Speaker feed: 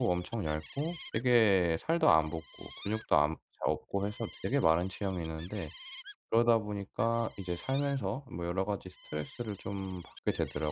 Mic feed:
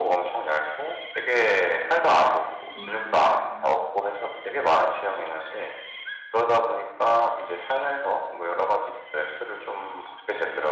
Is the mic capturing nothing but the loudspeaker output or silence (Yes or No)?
No